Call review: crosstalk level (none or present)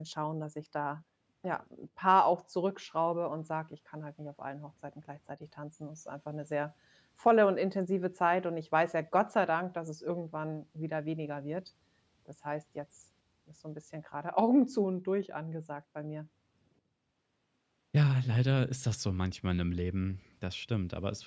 none